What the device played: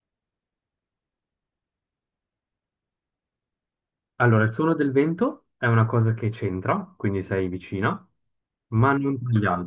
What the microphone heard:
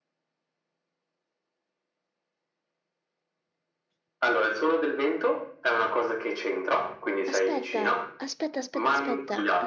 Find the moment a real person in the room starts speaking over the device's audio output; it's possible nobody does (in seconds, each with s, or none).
7.3 s